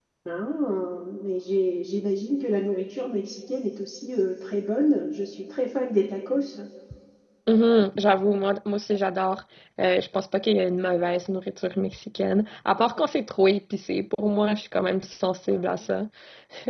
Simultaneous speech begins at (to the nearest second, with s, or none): none